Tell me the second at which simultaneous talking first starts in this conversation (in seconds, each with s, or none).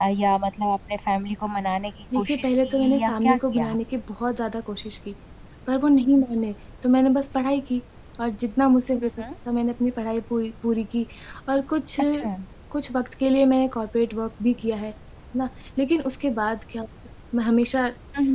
2.1 s